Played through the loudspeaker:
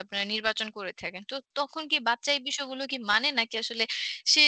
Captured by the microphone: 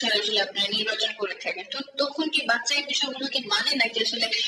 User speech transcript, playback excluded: none

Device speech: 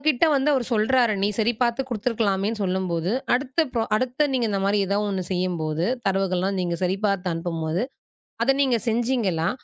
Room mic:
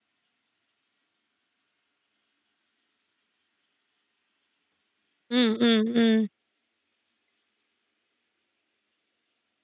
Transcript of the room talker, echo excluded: ம், ம், ம்.

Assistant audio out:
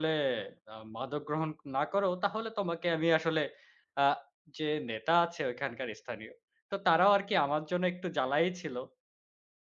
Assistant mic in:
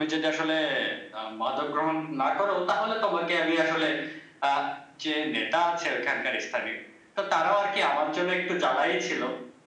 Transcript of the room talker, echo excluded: none

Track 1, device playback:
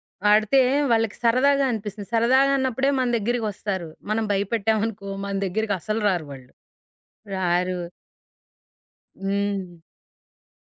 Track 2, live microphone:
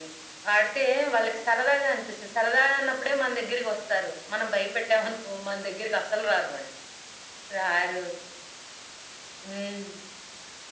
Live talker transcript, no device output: none

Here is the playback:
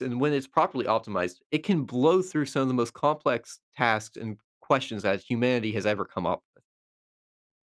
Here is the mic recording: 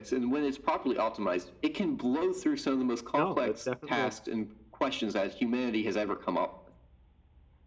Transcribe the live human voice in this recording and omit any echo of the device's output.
No, that's definitely

